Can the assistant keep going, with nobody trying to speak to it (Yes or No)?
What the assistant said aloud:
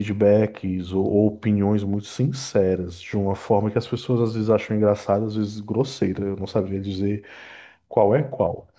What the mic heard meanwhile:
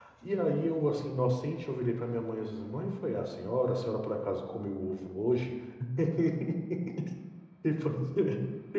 No